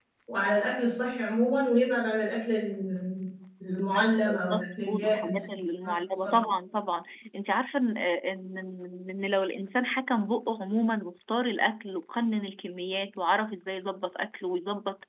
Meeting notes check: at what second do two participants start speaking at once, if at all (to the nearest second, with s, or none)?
4 s